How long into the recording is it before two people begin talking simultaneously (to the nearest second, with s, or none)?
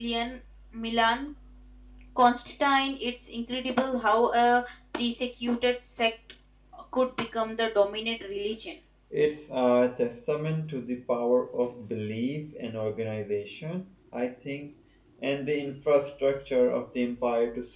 none